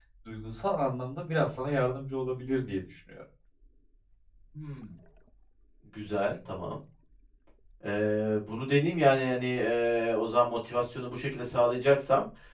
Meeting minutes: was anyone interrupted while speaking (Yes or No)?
No